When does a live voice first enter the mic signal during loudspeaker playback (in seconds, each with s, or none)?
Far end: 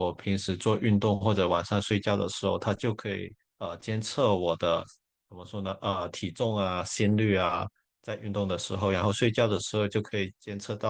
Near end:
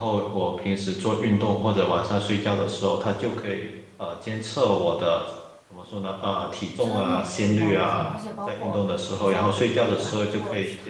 6.8 s